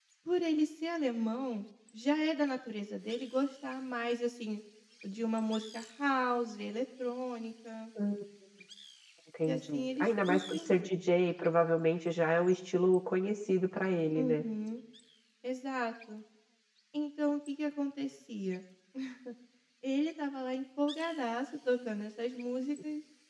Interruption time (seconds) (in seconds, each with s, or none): 9.5 s